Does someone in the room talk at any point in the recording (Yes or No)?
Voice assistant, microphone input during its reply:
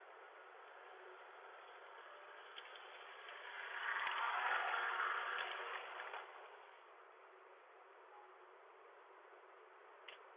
No